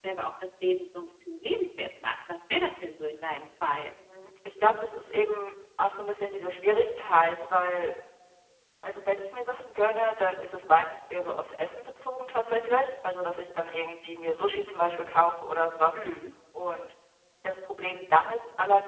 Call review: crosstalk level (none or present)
none